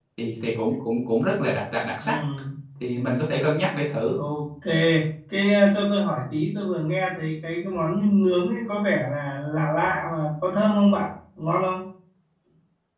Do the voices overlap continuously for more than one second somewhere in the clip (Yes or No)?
No